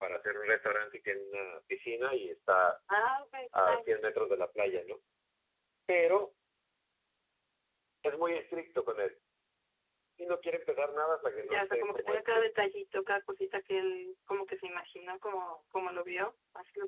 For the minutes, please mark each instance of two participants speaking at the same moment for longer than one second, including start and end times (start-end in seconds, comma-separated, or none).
11.2-12.5